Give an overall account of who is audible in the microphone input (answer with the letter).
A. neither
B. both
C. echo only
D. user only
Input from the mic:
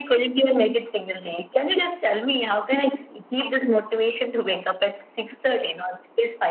C